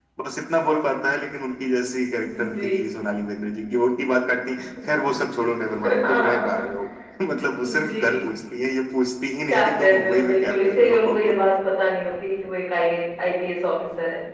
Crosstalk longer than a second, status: present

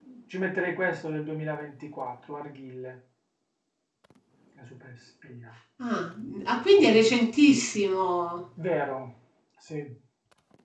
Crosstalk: none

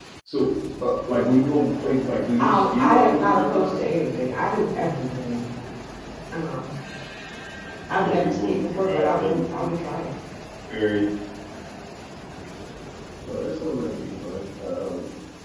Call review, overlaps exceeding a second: present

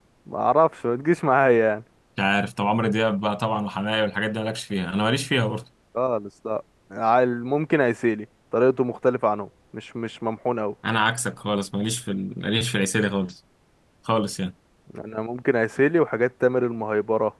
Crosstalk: none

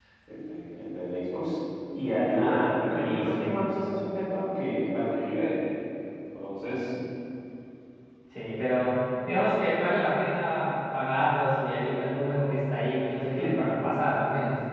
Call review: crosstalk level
present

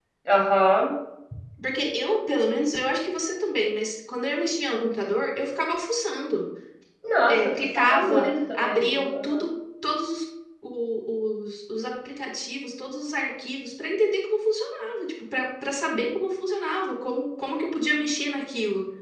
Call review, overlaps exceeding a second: present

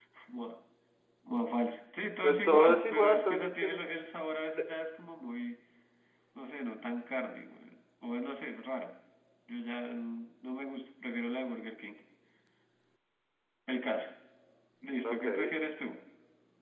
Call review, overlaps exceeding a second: present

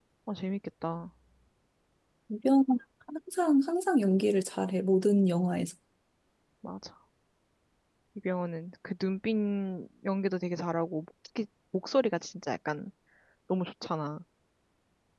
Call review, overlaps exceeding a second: none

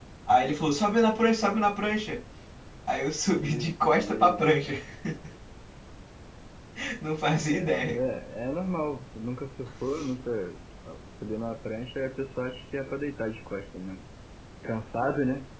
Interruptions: present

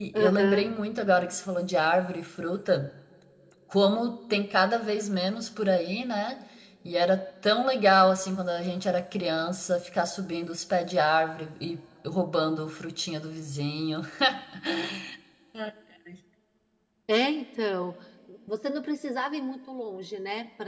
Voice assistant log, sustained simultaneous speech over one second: none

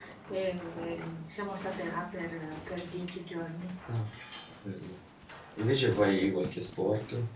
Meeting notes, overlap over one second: none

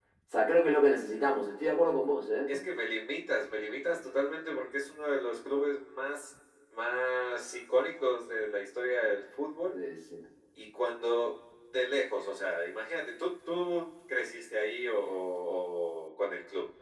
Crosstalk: none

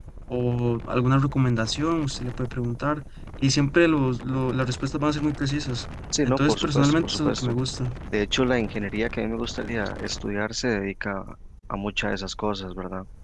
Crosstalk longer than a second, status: present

